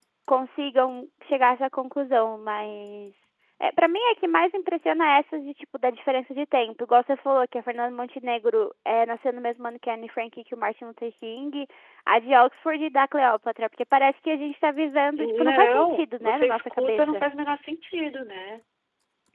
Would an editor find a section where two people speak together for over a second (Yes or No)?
Yes